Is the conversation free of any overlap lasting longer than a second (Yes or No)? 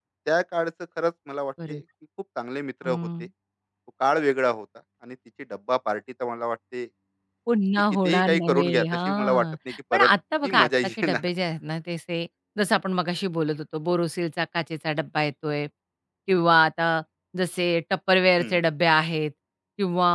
No